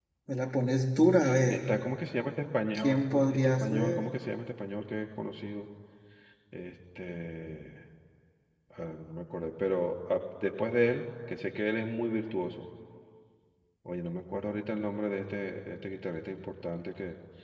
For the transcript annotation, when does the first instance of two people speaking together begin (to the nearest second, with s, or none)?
3 s